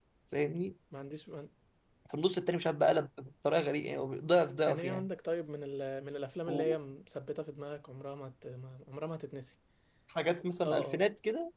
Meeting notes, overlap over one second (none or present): none